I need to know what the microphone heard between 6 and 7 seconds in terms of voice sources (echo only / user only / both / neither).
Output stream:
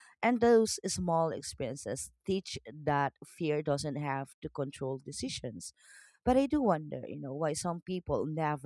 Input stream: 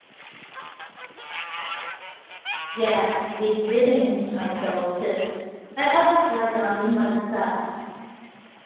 user only